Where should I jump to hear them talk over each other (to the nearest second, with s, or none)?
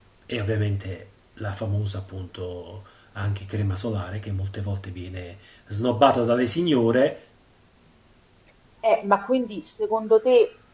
none